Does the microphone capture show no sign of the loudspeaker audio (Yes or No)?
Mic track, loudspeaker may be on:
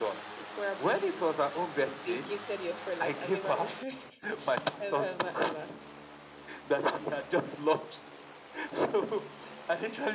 No